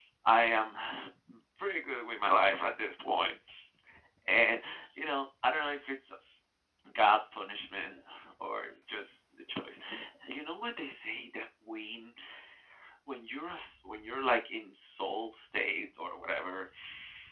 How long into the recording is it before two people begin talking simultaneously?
none

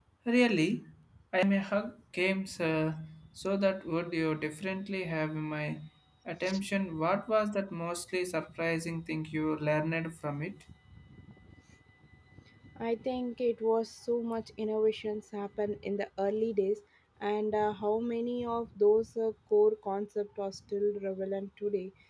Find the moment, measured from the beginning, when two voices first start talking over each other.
none

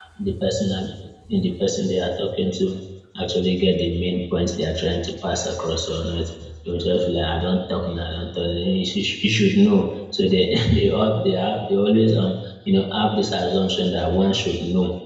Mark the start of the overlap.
none

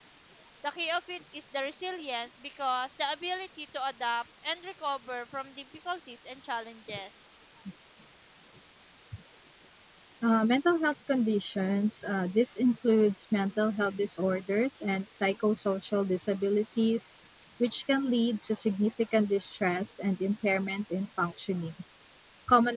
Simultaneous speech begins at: none

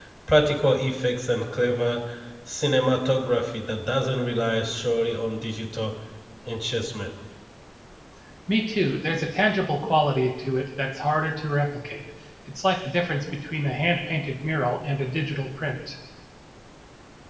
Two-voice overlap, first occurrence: none

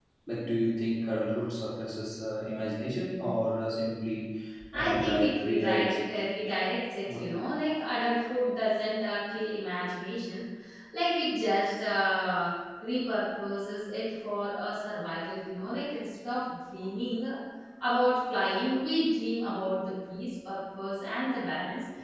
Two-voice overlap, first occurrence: 4.7 s

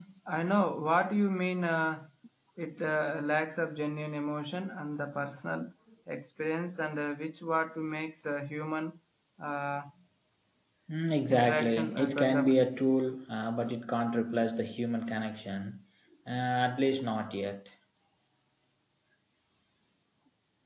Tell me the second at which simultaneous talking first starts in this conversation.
11.3 s

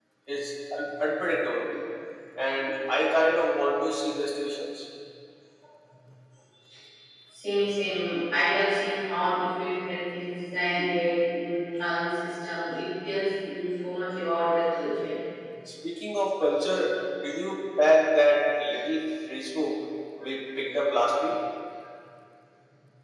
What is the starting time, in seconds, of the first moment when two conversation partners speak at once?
none

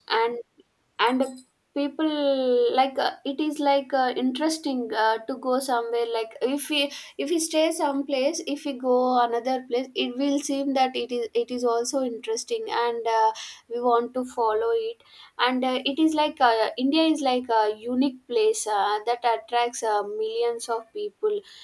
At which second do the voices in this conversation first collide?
none

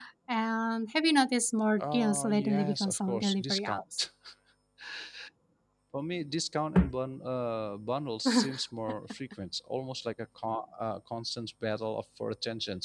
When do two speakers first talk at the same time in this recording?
1.8 s

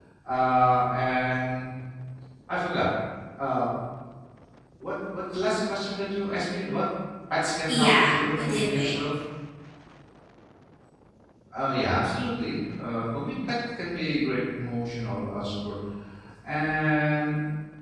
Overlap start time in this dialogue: 7.7 s

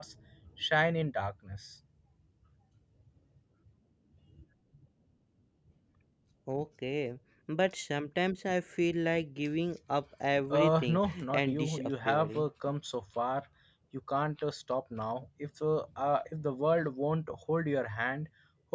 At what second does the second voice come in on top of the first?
10.5 s

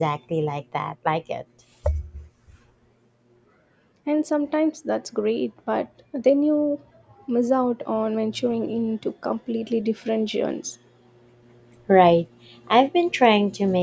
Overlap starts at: none

